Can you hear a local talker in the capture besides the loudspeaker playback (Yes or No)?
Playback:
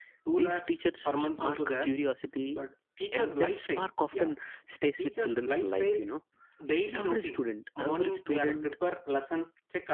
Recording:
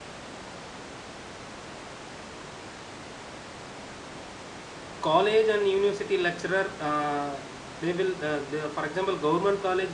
Yes